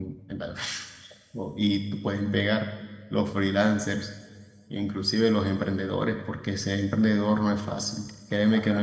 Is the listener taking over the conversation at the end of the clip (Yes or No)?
No